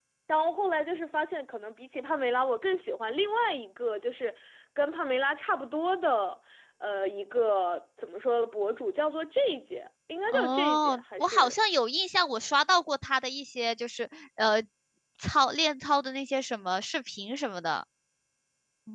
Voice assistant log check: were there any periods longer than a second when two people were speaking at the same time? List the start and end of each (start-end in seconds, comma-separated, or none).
10.3-11.5